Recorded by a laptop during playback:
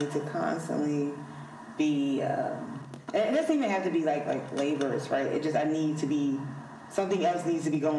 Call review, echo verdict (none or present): present